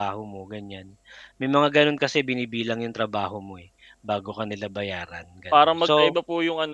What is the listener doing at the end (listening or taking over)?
taking over